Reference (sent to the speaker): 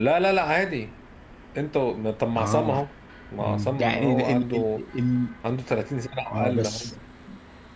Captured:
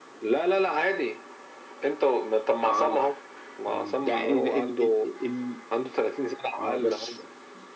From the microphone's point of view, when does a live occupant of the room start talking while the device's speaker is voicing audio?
none

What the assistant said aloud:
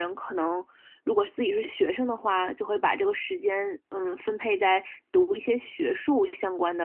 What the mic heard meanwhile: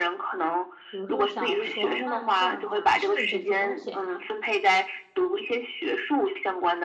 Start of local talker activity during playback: 0.9 s

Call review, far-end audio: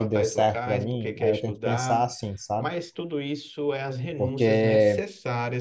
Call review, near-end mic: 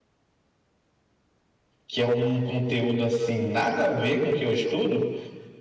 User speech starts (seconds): 1.9 s

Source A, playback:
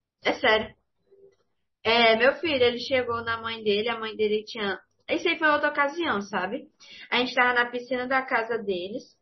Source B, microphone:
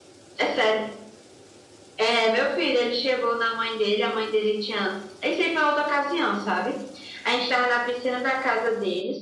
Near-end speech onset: none

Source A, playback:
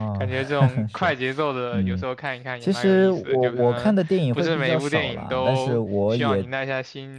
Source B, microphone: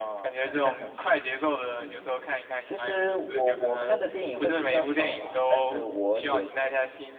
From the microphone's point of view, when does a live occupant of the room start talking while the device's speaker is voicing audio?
none

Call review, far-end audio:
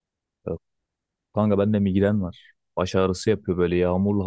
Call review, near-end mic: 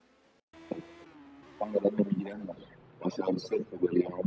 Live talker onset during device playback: none

